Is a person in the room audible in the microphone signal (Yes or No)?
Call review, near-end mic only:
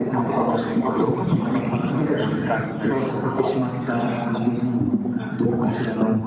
No